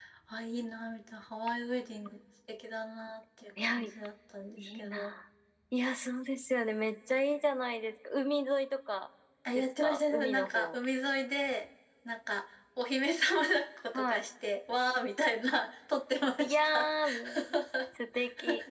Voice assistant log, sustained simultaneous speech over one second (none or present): present